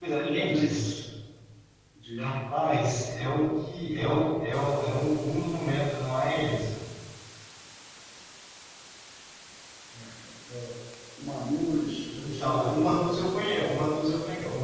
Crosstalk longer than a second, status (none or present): present